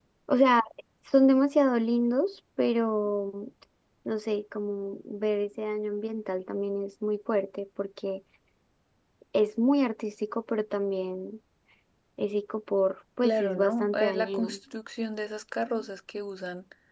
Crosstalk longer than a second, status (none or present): present